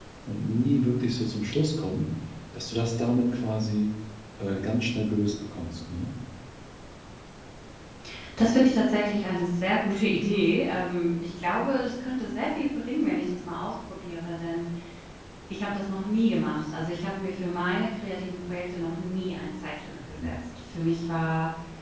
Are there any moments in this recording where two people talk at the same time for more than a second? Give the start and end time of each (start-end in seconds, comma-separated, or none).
none